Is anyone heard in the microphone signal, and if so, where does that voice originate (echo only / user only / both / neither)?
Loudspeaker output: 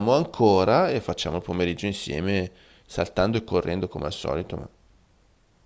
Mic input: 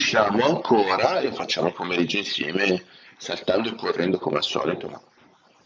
echo only